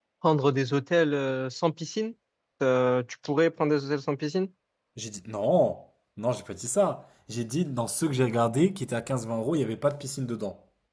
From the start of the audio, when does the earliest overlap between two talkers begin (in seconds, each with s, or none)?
none